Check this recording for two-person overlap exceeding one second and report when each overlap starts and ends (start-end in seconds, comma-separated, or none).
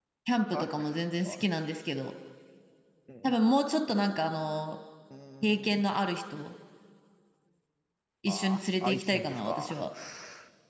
8.3-9.8